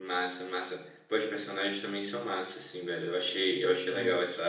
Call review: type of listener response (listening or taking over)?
listening